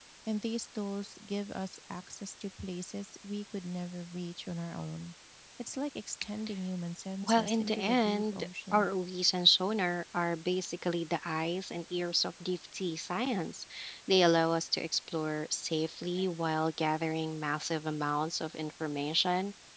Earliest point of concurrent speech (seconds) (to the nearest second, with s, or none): 7 s